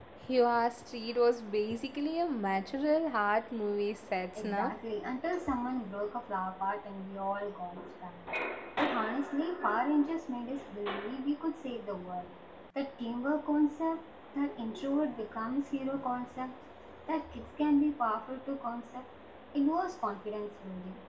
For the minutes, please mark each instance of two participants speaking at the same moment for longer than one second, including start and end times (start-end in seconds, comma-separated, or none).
none